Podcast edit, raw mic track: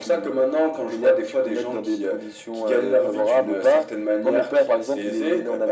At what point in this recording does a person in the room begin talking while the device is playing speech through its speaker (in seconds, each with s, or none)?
none